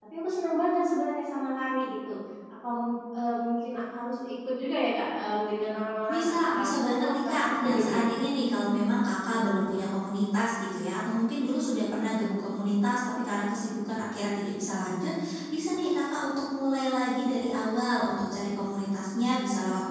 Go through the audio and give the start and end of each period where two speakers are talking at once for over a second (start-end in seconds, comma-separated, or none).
6.1-8.0